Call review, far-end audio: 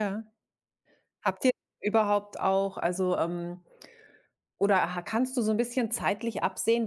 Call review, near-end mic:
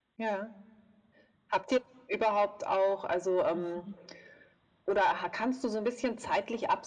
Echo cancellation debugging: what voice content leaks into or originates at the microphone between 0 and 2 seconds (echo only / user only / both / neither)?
echo only